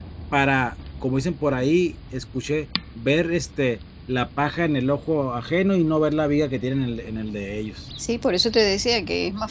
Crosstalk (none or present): none